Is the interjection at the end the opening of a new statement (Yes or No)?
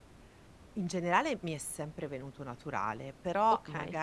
No